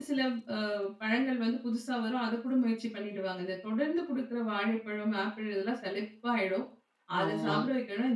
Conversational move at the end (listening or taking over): listening